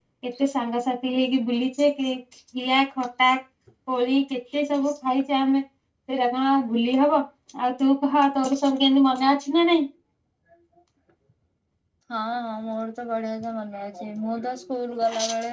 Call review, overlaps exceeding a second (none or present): none